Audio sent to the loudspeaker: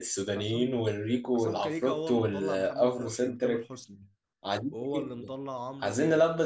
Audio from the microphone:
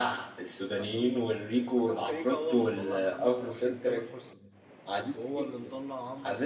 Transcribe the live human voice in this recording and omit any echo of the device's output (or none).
none